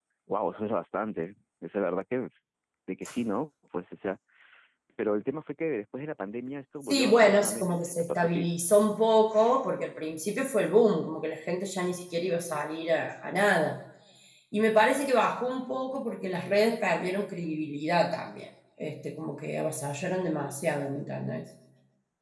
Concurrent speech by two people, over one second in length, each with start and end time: 6.8-8.5

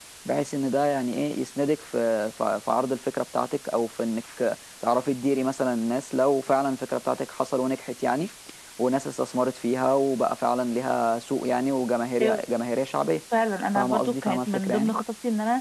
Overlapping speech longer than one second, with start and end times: 13.8-15.0

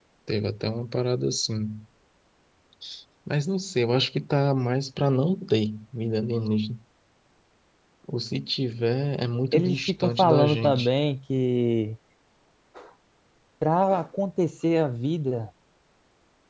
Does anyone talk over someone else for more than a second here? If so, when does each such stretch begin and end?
9.5-10.9

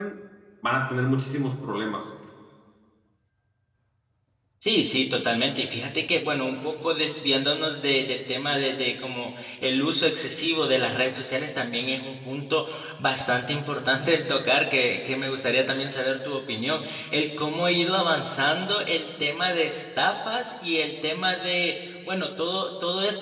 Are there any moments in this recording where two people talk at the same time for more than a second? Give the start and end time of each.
none

